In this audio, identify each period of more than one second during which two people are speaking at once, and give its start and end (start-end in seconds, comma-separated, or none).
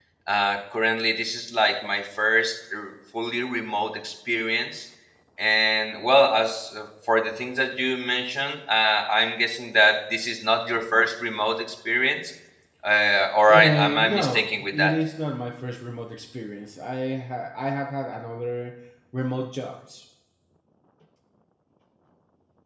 13.5-14.9